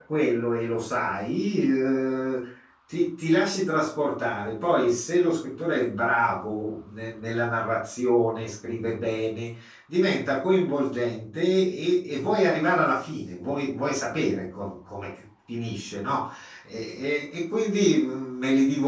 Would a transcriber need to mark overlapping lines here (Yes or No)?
No